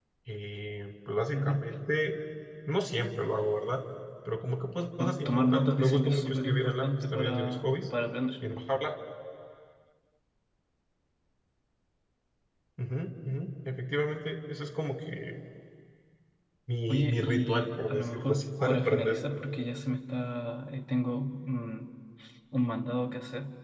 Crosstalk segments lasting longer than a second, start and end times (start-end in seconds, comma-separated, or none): 5.0-7.8, 16.9-19.2